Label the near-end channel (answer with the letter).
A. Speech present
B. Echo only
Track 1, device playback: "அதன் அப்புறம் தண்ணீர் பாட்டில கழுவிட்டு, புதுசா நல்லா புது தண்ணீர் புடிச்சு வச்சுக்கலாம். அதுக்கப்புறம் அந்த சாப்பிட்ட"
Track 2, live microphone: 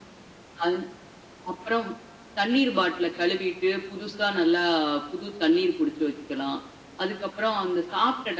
B